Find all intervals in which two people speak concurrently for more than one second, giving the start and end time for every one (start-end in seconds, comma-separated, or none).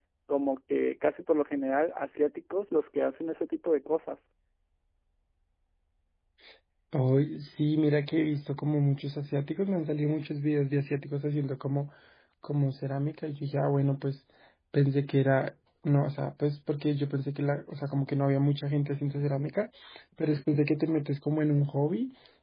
none